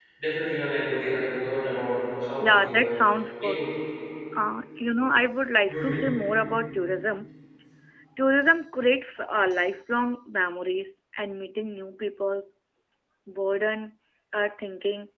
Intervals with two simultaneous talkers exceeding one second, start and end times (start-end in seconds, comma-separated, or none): none